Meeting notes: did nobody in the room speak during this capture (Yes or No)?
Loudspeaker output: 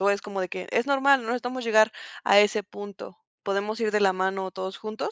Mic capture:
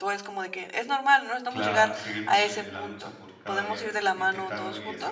No